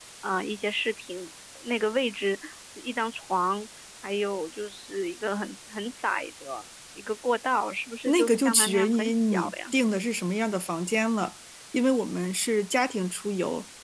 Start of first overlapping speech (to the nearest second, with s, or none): 8 s